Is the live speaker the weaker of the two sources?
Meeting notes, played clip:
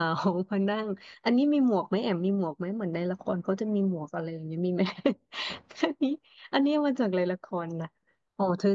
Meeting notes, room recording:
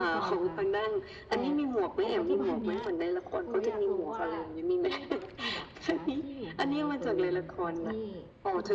Yes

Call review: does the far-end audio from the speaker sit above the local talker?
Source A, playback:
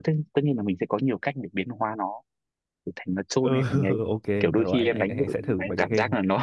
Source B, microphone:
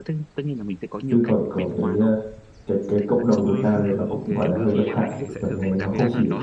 No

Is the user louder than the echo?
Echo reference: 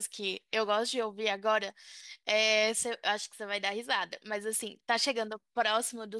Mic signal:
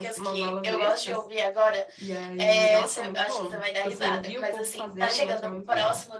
No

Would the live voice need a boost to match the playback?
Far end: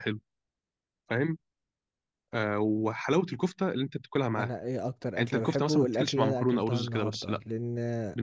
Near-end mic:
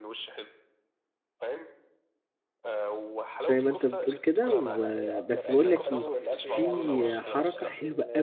No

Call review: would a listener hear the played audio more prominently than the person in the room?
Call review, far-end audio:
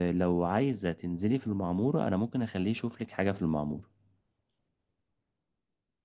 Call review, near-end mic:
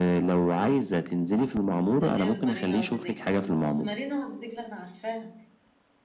Yes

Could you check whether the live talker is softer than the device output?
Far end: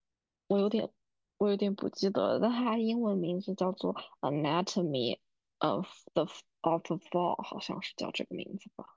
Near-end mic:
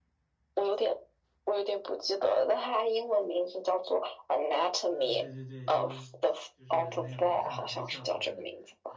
Yes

